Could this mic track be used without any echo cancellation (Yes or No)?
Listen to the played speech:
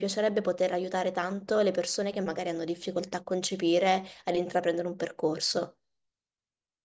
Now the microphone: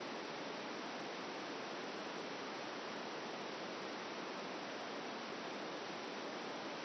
Yes